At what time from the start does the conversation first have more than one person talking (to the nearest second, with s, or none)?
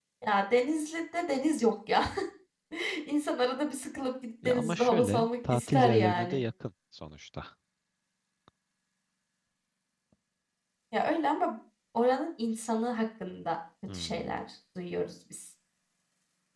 4 s